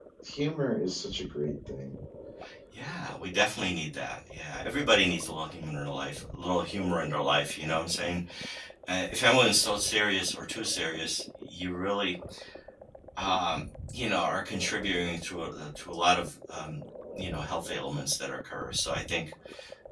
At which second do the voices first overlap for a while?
none

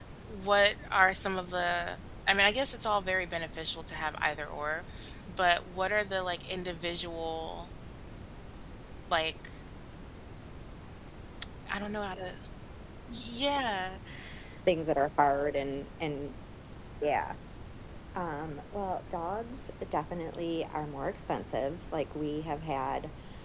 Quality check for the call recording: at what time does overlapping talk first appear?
none

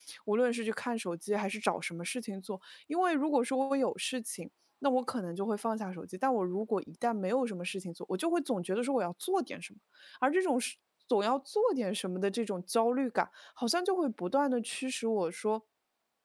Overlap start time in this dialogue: none

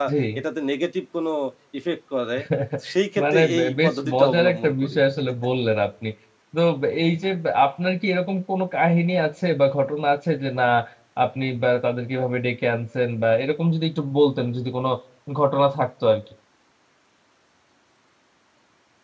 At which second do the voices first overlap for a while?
3.2 s

